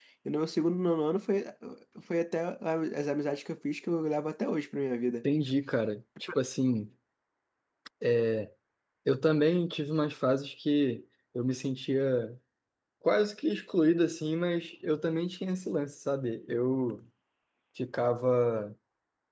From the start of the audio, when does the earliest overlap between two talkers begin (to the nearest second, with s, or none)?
none